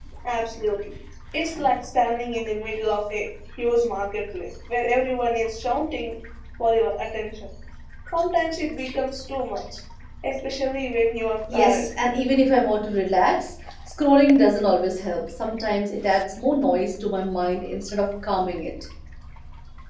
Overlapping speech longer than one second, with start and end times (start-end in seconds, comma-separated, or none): none